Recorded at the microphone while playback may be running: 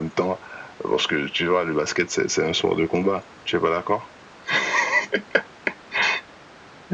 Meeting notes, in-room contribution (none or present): none